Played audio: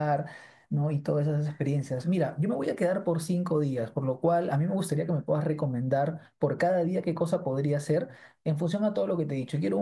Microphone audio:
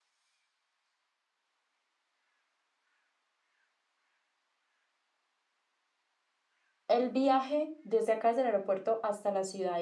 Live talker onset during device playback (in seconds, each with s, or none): 6.9 s